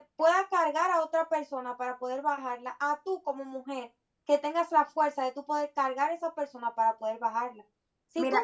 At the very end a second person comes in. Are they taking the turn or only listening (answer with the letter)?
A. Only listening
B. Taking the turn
A